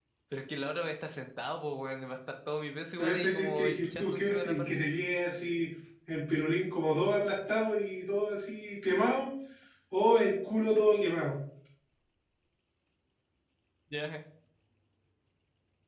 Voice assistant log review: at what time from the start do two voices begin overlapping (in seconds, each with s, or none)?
3.0 s